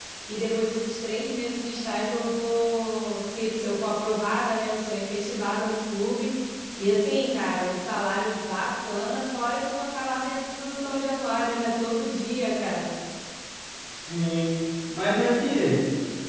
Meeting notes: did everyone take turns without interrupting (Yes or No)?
Yes